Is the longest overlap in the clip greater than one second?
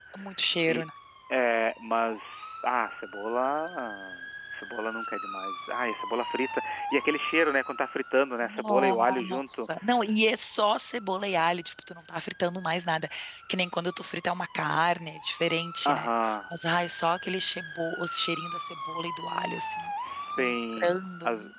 Yes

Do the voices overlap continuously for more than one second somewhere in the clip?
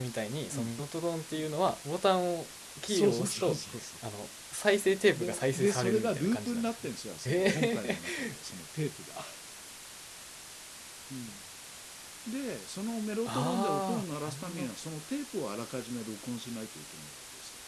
Yes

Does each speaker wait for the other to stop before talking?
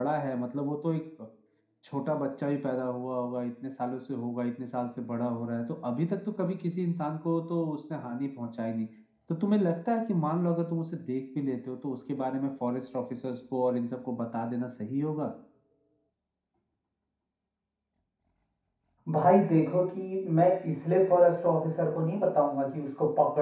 Yes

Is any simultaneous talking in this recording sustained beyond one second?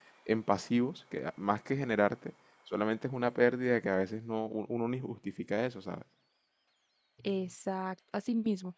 No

